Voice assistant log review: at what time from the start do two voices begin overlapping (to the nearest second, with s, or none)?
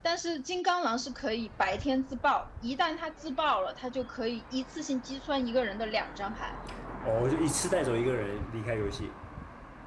none